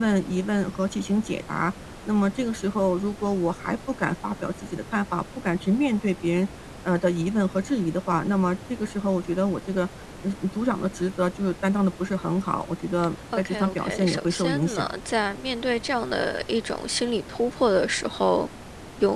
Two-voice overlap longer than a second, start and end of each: 13.4-14.9

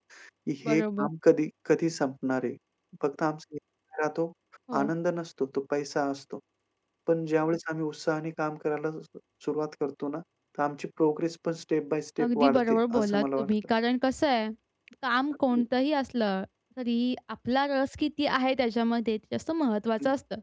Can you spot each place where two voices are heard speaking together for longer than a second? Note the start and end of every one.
12.2-13.5

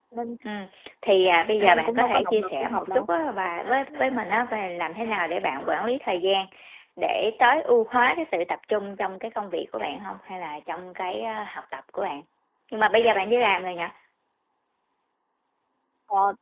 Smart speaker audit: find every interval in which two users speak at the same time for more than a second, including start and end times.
1.6-3.1

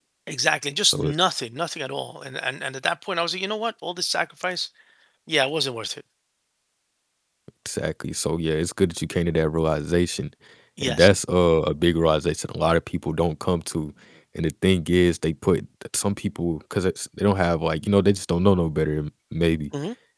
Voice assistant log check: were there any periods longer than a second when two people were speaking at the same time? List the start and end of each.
none

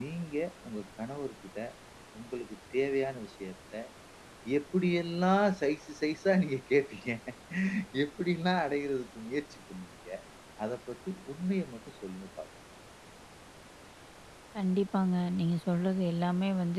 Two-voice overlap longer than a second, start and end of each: none

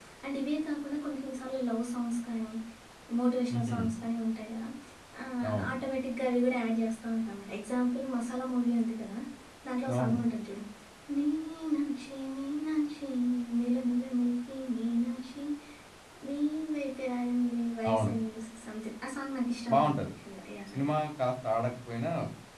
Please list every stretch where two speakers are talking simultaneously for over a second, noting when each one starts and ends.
none

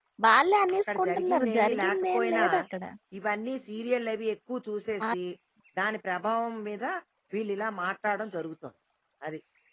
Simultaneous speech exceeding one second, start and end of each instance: 0.7-2.4

